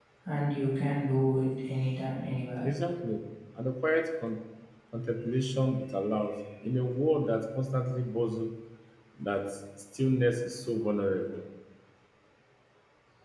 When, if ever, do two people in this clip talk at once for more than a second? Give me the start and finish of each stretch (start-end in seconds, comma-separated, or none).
none